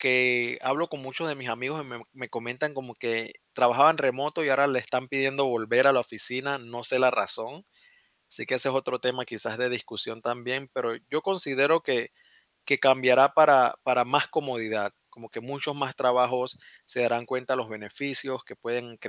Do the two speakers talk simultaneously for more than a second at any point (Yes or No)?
No